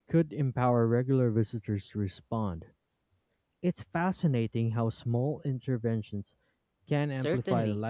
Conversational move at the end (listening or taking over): taking over